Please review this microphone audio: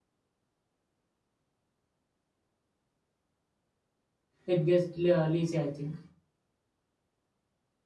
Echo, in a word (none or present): none